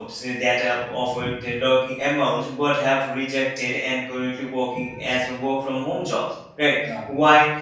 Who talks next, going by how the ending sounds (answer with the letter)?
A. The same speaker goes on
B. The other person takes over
A